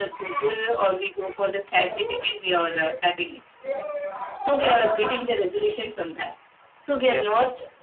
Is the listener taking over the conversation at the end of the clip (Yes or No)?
No